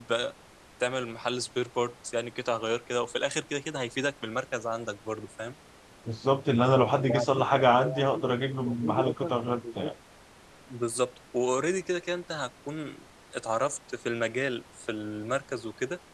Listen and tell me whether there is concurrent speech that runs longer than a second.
Yes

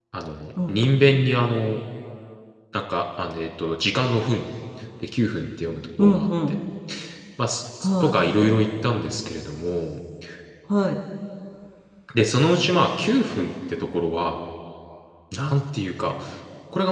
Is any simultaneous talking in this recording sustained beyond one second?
No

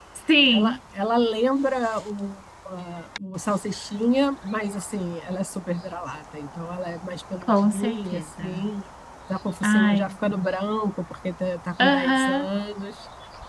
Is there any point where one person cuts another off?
Yes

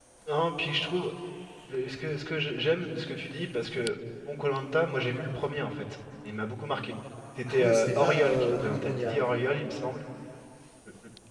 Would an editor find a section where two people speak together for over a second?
Yes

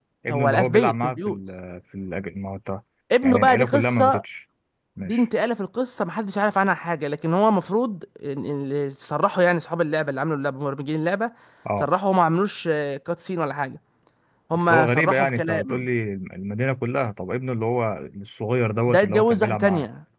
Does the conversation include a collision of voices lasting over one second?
Yes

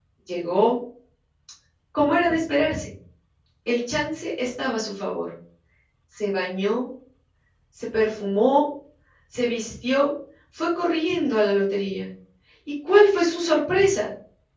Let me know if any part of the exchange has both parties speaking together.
No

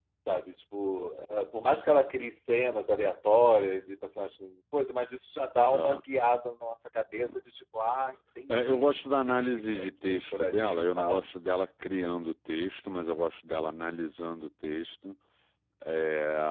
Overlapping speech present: Yes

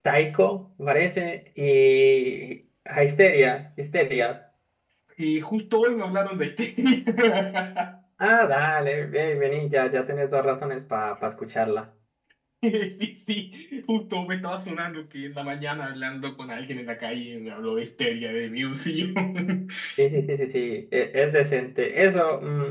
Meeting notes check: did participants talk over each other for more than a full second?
No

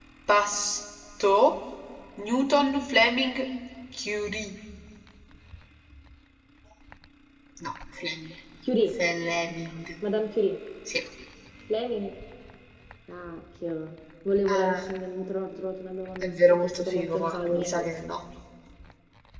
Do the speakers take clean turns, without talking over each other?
No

